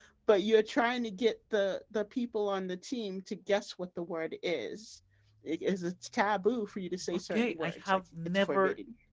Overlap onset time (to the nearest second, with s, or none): 7 s